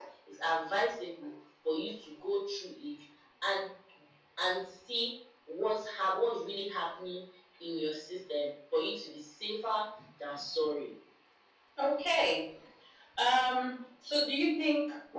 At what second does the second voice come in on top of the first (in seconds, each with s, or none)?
none